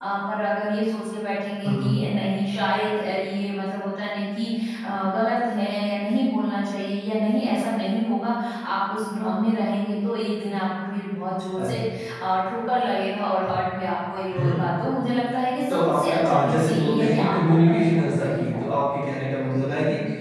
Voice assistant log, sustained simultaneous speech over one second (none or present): present